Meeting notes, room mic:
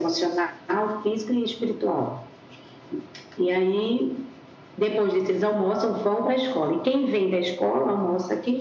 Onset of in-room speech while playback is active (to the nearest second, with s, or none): none